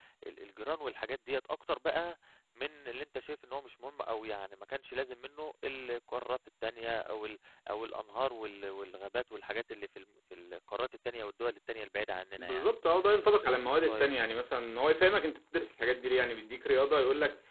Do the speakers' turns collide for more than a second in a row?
No

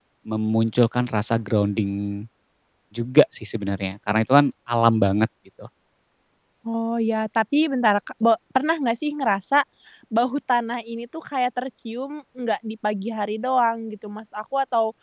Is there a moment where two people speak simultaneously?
No

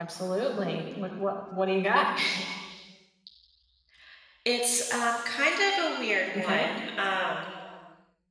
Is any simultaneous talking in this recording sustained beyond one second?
No

